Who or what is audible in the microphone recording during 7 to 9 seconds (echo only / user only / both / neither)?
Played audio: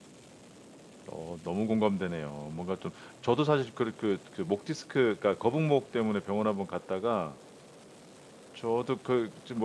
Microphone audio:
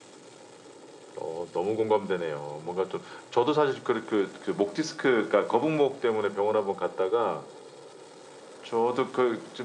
echo only